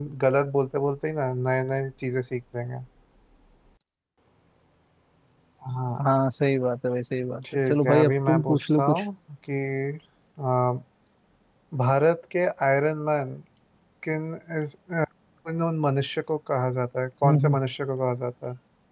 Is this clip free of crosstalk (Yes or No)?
No